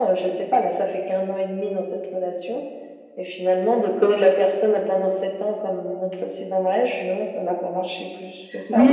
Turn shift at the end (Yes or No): Yes